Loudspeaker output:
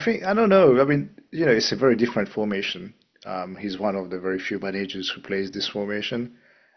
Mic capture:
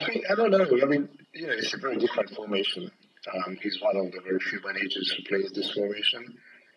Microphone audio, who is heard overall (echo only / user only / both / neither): echo only